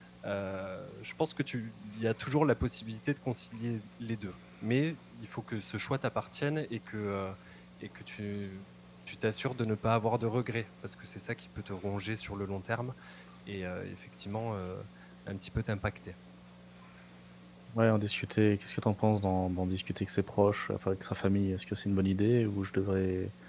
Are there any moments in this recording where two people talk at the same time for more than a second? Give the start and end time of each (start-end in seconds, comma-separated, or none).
none